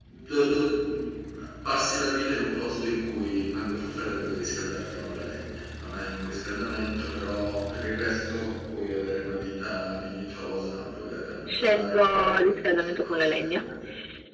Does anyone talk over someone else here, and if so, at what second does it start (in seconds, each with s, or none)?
11.4 s